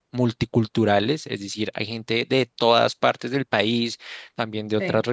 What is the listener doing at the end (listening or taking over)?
listening